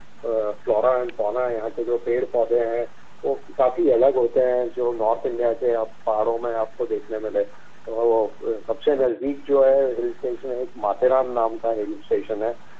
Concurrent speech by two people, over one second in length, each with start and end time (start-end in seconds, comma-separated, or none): none